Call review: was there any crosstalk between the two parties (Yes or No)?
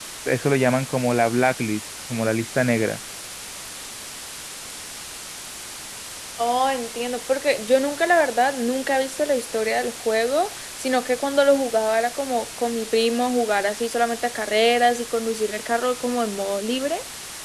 No